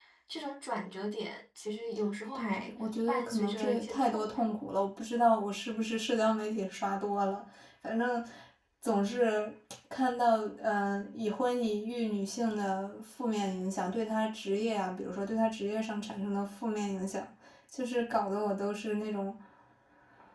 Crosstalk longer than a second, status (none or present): present